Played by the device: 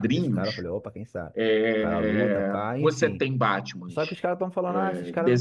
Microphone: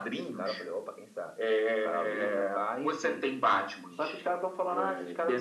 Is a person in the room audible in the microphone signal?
No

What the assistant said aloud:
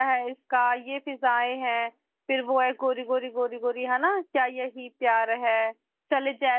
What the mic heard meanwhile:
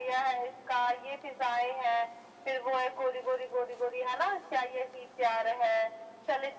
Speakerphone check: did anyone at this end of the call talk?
No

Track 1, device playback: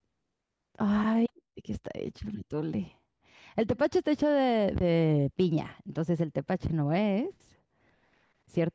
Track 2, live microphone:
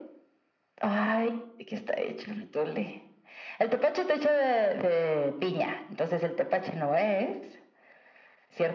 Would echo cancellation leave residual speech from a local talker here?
No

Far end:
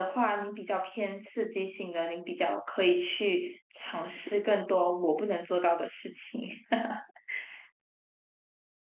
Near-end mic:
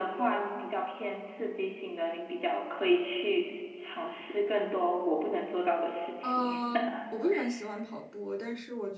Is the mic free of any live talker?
No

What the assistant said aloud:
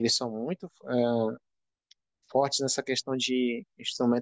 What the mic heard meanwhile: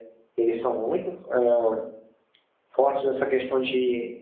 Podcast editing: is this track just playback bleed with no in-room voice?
Yes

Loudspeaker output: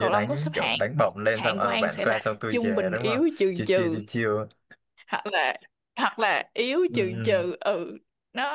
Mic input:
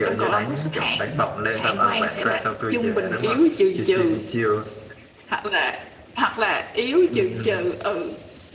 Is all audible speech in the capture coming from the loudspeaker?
Yes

